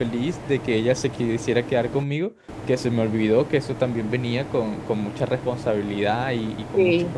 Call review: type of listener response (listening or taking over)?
listening